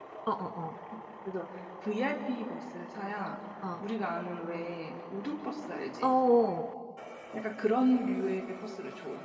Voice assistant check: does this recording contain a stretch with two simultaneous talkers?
No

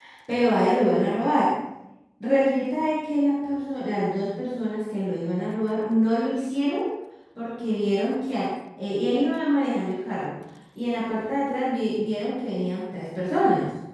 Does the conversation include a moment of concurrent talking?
No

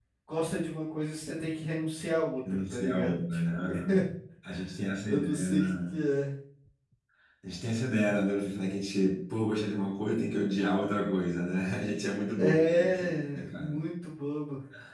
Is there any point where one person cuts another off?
Yes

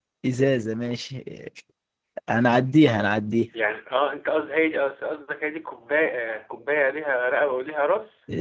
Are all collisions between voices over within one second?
Yes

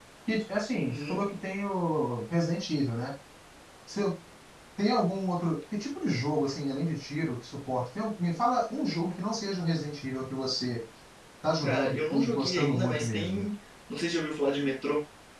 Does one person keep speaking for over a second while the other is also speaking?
Yes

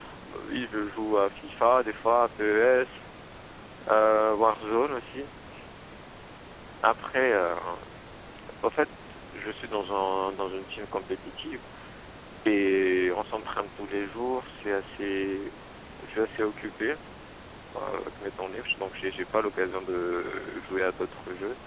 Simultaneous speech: No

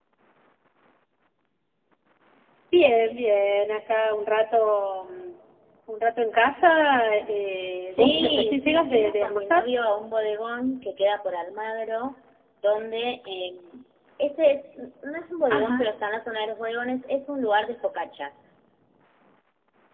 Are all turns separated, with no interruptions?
No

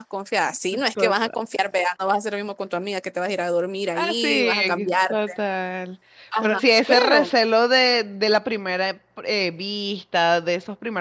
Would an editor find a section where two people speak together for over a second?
Yes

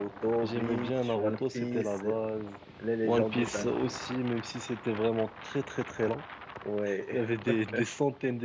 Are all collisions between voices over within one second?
No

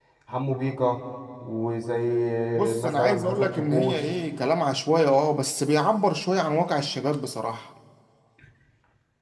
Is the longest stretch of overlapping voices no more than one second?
No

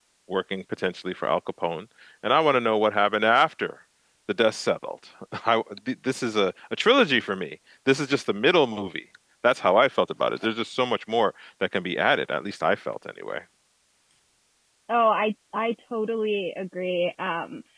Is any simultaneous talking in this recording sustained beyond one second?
No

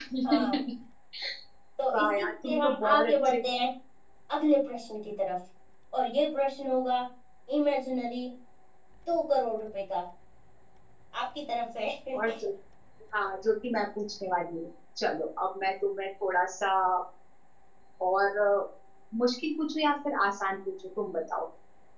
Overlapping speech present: Yes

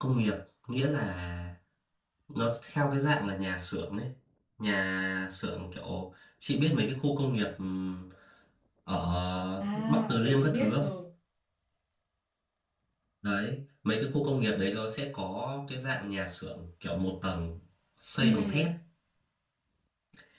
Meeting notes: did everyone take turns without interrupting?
No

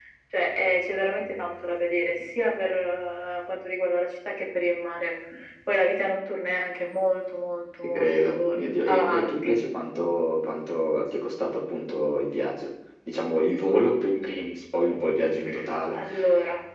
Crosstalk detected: Yes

